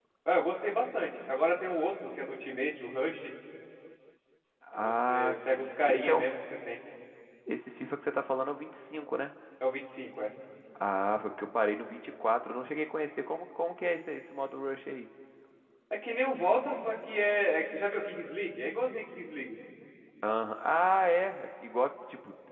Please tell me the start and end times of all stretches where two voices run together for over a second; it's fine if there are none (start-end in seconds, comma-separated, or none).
4.7-6.3